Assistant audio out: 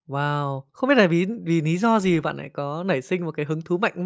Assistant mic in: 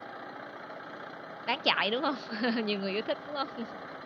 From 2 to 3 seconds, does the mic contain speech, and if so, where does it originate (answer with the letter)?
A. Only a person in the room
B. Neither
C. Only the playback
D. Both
A